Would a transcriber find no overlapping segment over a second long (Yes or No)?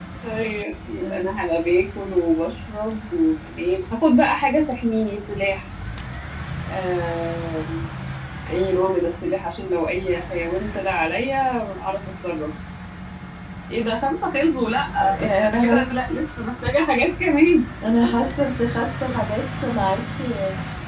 Yes